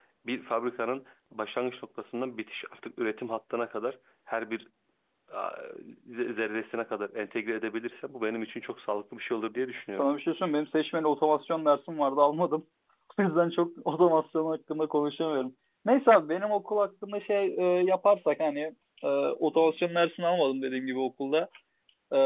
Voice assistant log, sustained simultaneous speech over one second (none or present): none